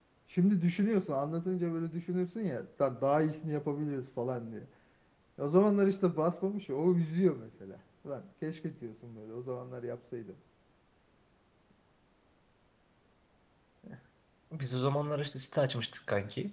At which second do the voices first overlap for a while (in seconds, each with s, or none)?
none